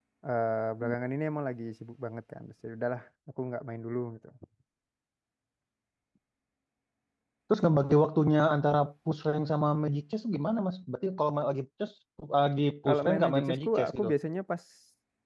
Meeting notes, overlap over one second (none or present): present